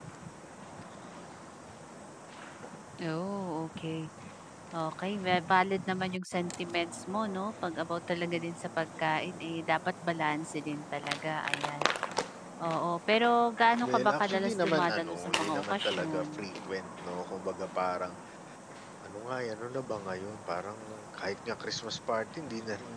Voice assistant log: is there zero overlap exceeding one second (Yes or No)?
No